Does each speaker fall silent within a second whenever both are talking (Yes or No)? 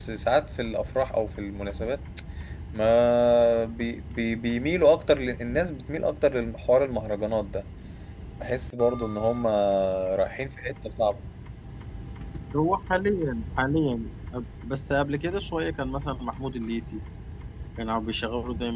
Yes